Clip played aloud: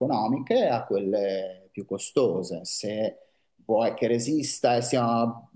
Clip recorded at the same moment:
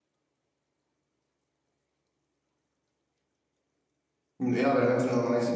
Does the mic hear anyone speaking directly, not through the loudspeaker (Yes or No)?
Yes